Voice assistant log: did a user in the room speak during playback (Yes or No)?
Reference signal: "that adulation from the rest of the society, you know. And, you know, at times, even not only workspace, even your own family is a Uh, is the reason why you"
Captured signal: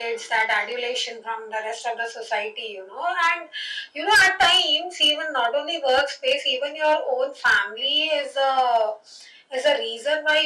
No